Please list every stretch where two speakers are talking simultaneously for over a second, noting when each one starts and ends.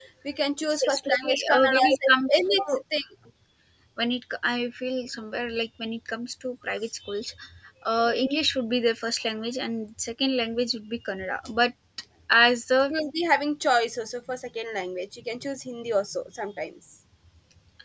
0.7-2.5

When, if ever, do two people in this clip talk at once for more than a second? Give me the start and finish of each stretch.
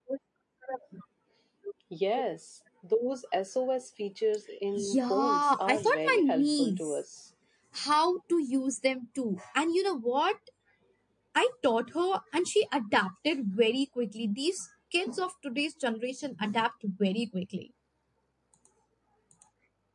4.8-7.0

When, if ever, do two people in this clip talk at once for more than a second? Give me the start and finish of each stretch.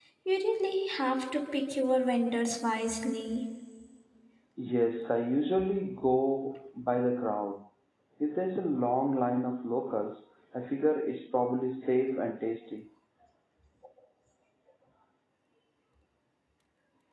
none

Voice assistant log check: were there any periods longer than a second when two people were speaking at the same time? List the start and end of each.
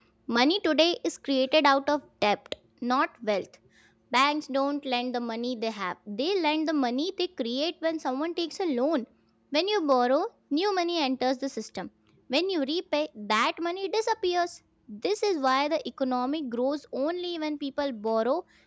none

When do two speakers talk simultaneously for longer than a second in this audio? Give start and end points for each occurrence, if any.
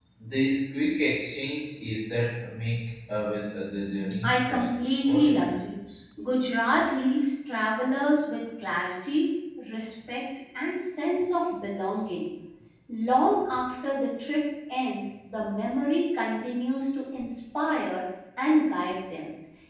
4.2-5.8

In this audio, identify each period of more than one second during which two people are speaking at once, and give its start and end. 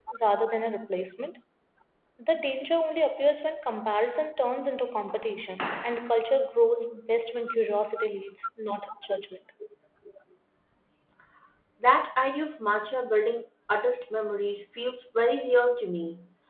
none

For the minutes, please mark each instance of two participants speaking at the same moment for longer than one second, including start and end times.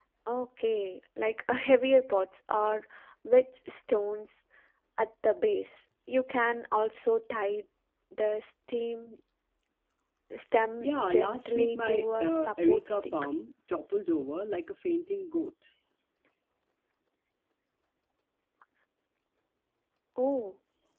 10.8-13.1

